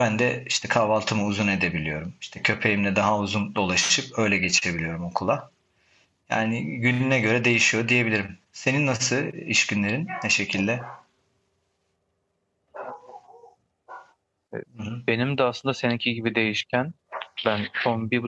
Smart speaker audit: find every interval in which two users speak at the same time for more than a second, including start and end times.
none

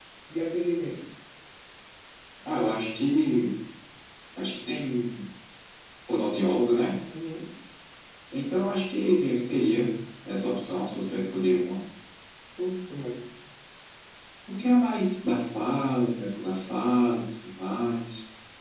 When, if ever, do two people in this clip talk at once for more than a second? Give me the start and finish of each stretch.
none

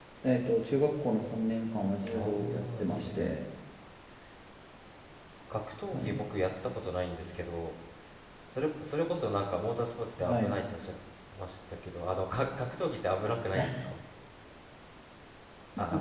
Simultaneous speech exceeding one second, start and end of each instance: 2.1-3.4

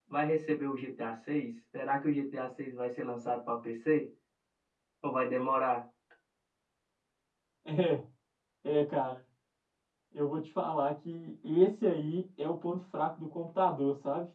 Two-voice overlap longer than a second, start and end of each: none

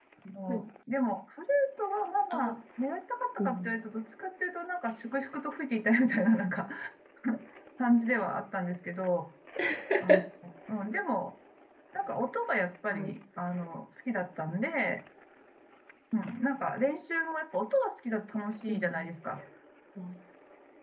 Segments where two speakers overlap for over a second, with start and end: none

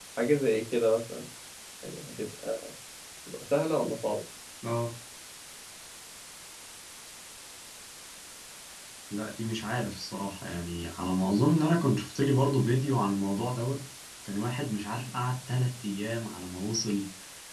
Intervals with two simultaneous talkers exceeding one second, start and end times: none

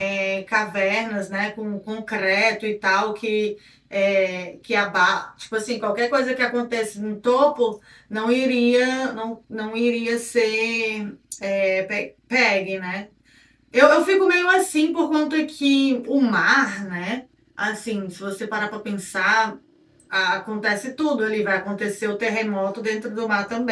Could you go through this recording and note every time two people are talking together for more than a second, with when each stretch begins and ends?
none

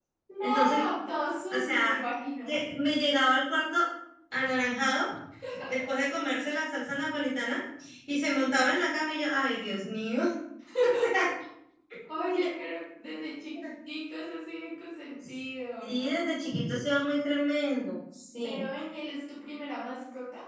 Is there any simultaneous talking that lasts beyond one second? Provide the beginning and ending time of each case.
none

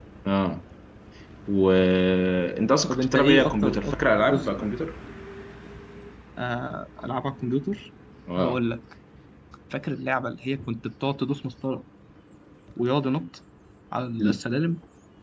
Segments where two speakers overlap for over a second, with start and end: 2.9-4.7

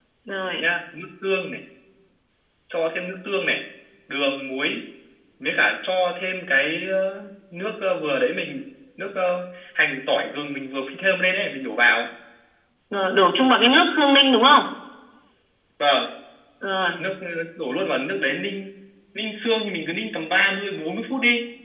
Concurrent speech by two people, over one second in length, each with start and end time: none

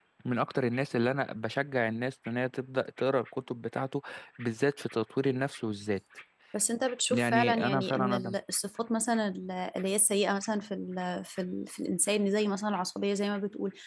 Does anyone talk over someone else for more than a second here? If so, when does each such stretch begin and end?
7.1-8.3

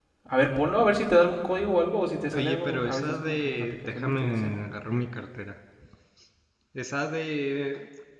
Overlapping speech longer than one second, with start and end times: 2.3-4.6

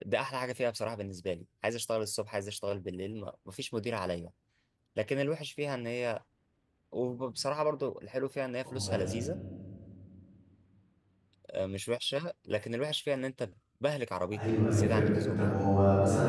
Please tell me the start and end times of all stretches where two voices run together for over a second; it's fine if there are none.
14.4-15.6

